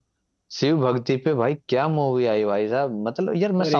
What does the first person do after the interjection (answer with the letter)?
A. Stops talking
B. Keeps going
B